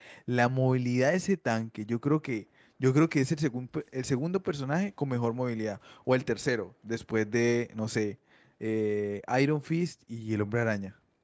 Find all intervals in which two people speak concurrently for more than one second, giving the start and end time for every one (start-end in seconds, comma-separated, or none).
none